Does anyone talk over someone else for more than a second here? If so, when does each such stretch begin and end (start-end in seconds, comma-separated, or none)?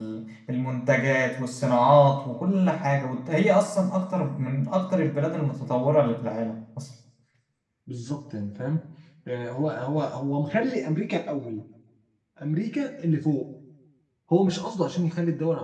none